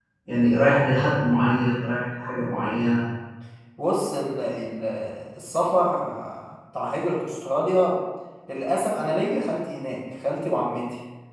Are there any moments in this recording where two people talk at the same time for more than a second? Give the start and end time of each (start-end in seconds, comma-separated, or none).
none